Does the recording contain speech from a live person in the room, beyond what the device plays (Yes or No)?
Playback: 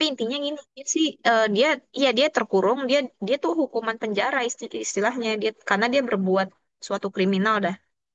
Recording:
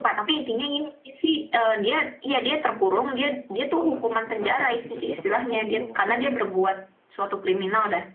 Yes